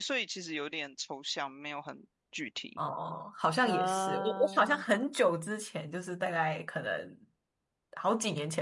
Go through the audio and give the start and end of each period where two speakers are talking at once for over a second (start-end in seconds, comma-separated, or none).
3.6-4.8